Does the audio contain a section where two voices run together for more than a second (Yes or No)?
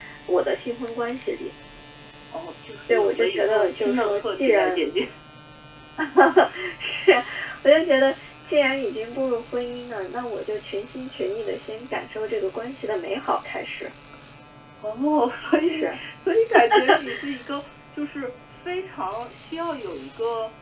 Yes